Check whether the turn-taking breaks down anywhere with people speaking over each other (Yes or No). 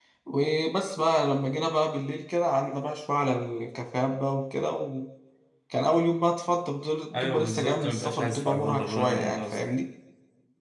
Yes